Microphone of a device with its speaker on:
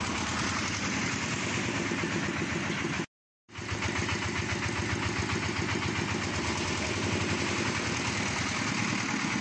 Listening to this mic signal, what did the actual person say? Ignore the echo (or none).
none